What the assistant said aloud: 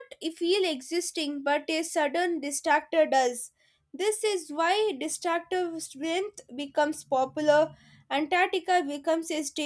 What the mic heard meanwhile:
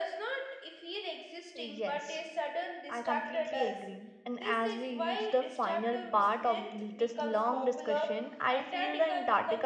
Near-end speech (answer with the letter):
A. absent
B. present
B